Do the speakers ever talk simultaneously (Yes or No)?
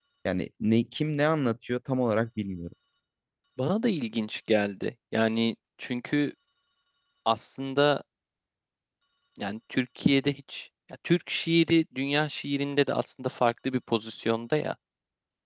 No